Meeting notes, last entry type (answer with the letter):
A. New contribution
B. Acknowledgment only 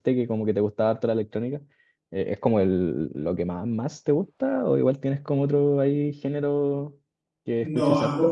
A